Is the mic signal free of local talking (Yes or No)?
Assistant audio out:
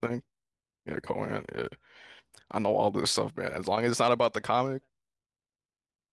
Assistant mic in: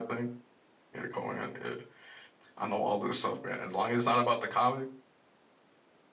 Yes